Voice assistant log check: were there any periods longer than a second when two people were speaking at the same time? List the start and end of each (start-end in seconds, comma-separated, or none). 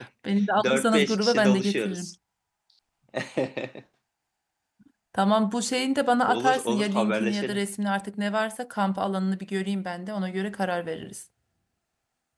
0.6-2.1, 6.3-7.6